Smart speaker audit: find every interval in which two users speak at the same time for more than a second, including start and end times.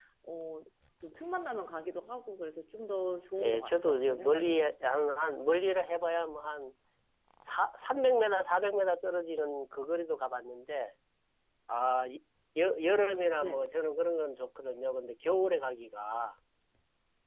3.4-4.7

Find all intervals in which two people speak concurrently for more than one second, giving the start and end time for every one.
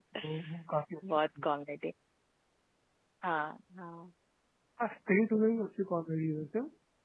none

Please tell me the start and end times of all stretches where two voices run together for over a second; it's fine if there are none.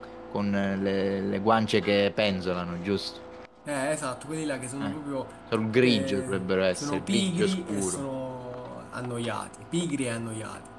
5.8-8.0

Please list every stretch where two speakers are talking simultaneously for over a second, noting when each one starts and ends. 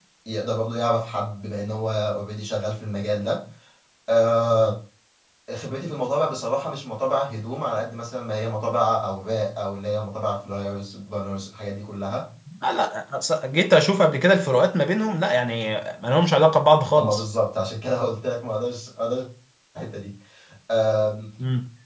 none

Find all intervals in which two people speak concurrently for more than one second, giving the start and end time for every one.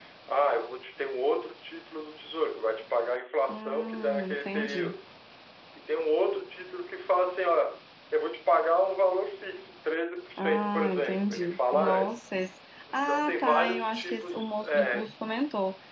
3.5-5.0, 10.4-12.1, 12.9-15.1

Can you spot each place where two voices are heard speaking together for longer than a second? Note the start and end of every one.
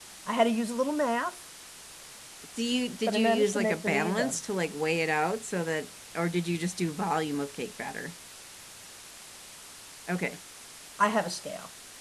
3.1-4.4

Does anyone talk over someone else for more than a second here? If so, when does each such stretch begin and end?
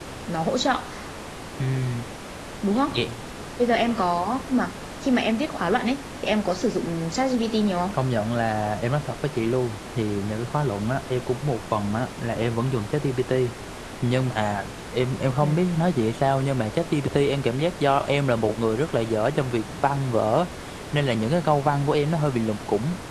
none

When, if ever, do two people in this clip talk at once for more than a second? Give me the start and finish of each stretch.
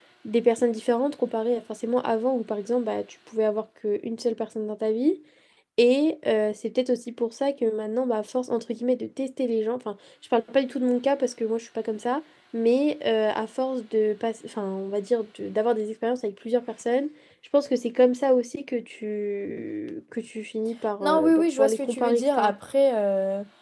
21.0-22.5

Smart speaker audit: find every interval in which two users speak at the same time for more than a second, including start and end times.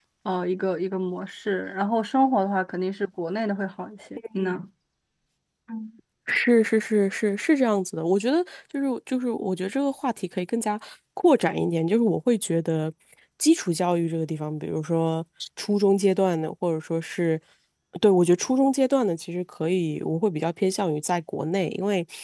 none

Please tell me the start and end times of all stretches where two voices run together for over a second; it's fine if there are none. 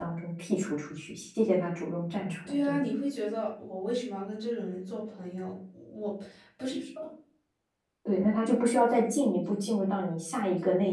none

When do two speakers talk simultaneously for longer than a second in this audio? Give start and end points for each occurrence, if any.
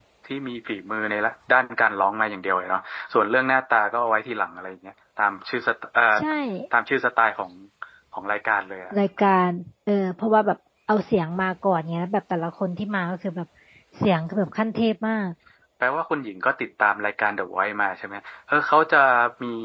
none

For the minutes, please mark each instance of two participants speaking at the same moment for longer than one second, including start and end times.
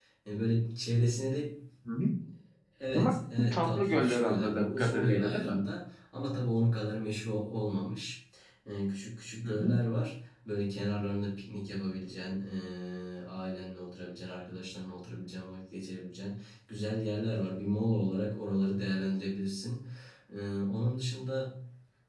3.0-5.6

